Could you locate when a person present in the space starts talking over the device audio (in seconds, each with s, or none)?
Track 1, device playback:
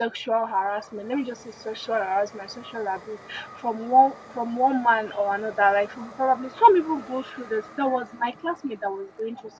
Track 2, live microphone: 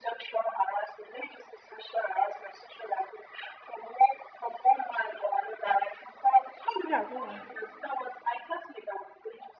6.8 s